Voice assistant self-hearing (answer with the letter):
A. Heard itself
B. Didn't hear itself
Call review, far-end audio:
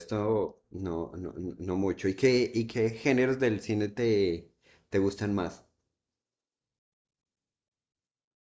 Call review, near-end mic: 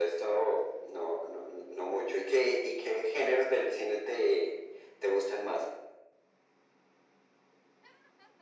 A